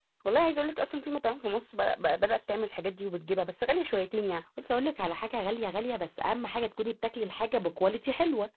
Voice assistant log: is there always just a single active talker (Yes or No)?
Yes